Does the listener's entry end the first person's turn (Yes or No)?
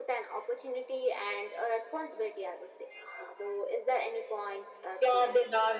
Yes